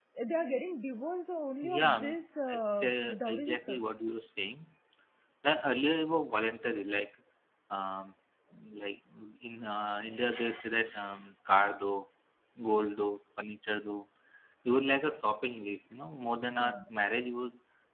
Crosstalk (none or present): present